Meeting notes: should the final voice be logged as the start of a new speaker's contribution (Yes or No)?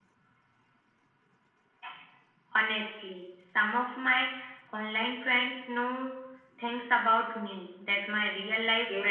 Yes